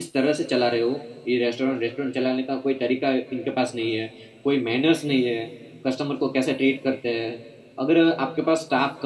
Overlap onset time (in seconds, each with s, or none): none